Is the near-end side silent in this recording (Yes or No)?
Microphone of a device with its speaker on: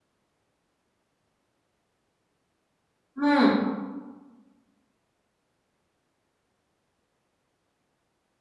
No